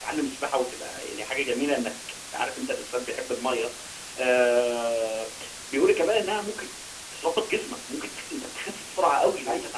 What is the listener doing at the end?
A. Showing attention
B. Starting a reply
B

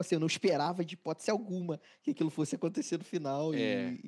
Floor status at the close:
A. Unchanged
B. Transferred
A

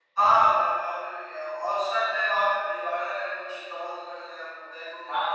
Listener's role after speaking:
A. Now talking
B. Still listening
A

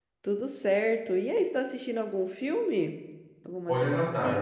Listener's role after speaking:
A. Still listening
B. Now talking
B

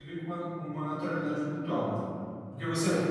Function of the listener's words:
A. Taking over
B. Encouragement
B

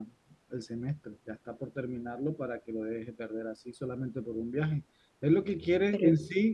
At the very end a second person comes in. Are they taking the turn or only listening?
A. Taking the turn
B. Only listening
B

